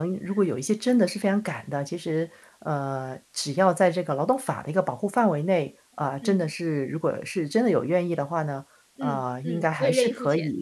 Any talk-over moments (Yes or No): Yes